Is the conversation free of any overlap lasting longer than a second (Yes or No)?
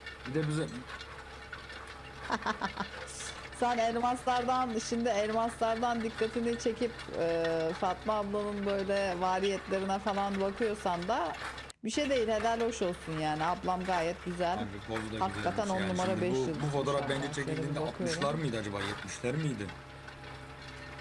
No